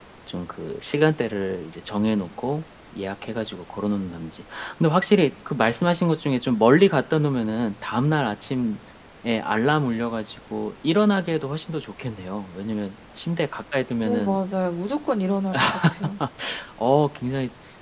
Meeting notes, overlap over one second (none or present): none